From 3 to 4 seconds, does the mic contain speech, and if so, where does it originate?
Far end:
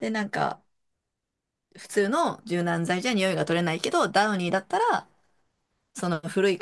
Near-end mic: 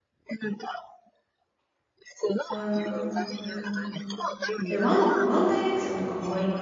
both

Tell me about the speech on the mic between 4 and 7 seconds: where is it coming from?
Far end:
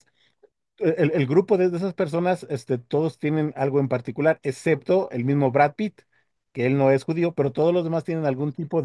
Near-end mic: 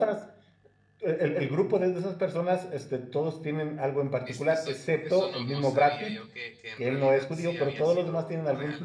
both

